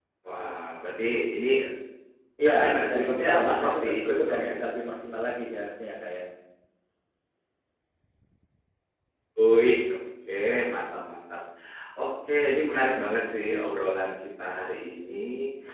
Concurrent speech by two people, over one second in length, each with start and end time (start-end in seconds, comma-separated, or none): 2.5-4.5